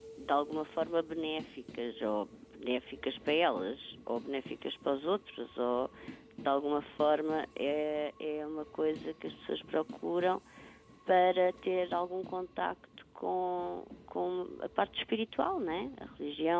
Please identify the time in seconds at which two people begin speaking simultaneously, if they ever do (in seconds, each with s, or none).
none